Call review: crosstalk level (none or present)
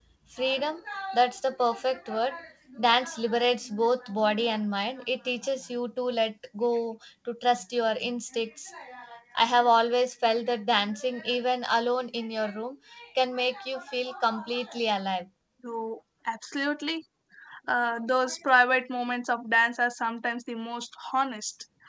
none